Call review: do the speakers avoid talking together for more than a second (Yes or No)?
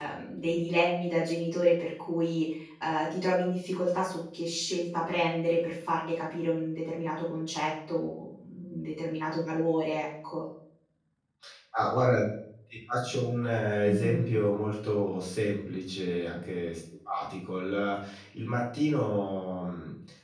Yes